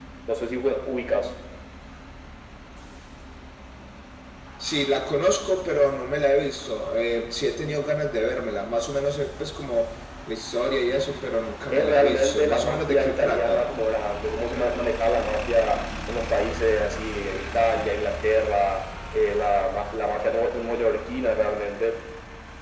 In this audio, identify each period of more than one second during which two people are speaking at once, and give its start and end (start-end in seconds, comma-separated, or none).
11.7-13.7